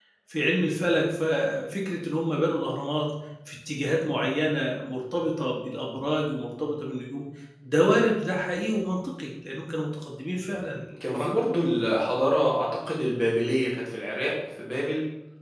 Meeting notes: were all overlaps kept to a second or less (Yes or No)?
Yes